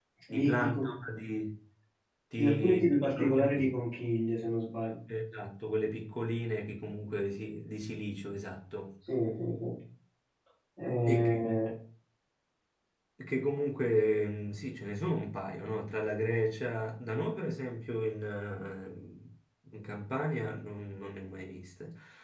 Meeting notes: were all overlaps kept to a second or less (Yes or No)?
No